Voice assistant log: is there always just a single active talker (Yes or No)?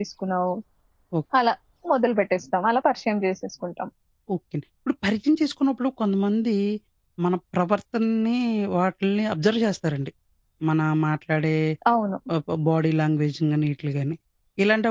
Yes